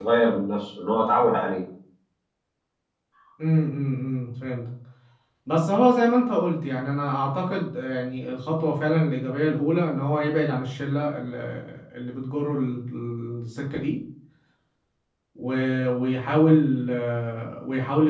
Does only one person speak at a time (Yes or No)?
Yes